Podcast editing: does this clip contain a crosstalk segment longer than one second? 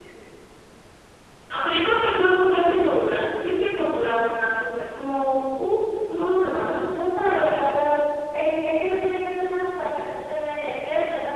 No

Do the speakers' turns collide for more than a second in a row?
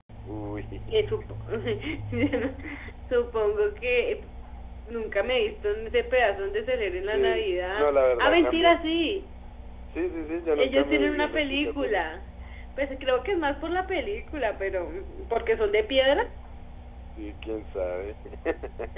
Yes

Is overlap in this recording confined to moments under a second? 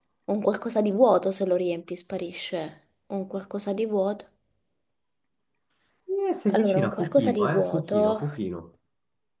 No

